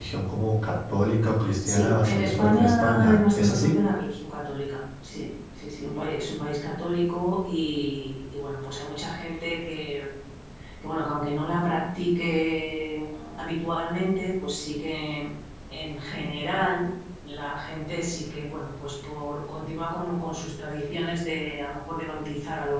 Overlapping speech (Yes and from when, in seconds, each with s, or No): Yes, from 1.6 s